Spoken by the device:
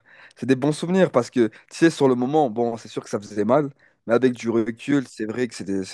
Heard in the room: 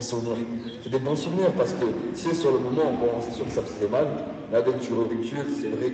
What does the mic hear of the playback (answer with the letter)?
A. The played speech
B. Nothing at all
A